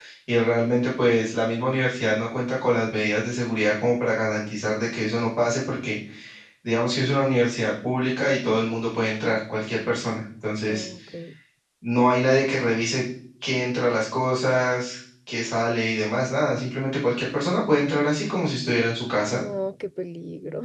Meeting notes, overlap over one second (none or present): none